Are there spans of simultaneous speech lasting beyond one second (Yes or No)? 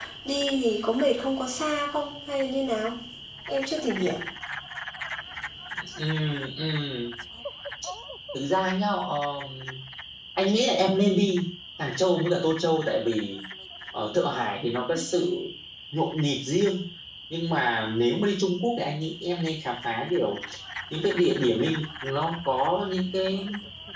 No